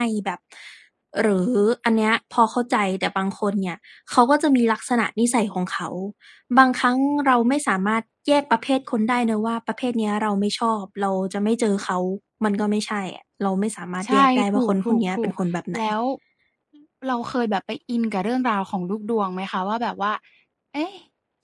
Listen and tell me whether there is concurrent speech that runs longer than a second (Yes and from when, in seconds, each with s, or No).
Yes, from 14.0 s